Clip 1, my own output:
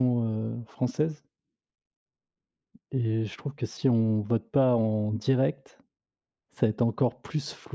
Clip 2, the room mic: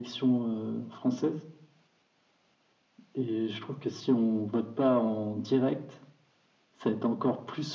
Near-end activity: none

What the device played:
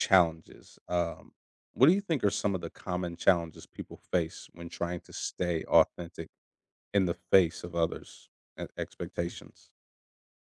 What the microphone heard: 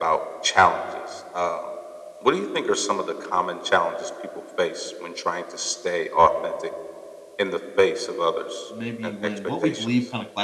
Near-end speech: present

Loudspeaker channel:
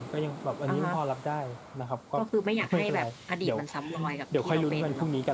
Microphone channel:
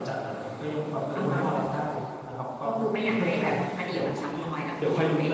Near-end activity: present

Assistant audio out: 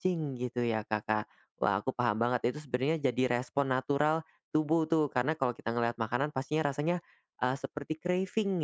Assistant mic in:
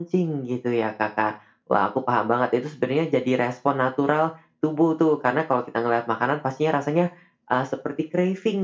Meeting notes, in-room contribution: none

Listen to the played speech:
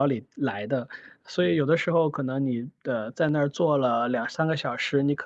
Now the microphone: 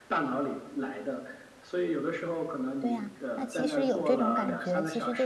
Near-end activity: present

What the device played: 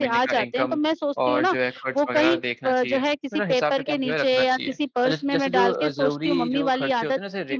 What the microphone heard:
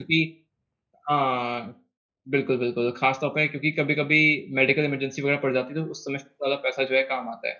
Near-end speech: present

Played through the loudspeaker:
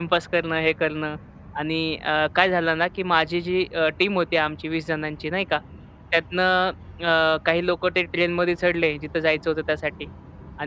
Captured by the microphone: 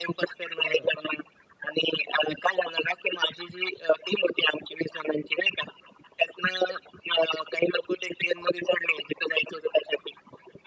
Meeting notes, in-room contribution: present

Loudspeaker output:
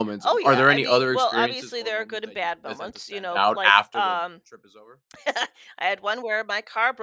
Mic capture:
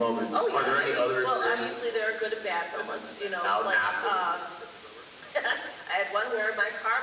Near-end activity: none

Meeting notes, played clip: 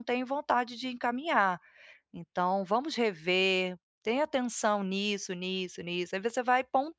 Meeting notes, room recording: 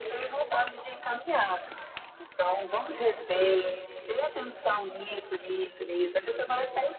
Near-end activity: none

